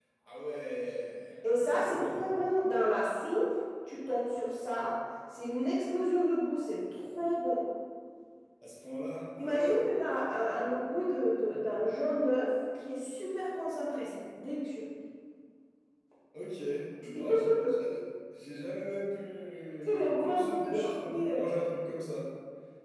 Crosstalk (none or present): present